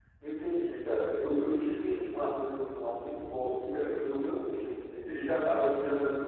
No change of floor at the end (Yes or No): Yes